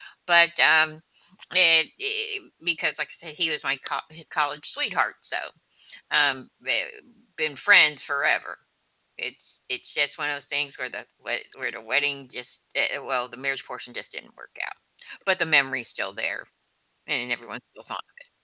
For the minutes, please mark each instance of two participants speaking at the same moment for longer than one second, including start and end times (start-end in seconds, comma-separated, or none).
none